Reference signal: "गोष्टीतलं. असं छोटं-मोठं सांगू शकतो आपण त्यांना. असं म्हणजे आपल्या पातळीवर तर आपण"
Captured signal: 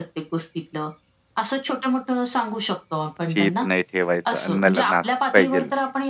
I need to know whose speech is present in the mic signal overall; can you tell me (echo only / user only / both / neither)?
both